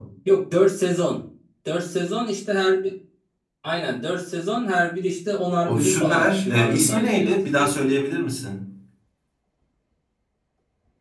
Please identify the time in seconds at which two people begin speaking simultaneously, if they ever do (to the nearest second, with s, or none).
6 s